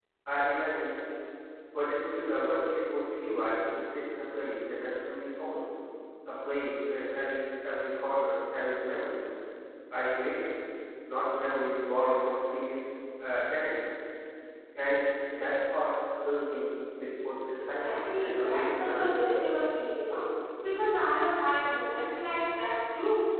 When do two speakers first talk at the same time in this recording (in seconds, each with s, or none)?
17.6 s